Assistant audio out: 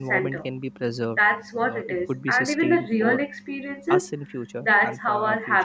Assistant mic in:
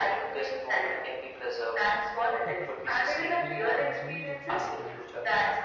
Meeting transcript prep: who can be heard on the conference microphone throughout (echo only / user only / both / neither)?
both